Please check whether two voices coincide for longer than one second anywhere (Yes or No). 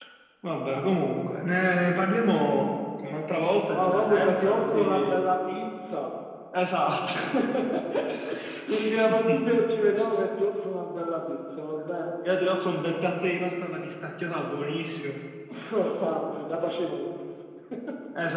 Yes